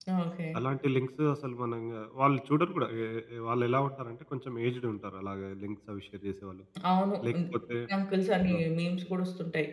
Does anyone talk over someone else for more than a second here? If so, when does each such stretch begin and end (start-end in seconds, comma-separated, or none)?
none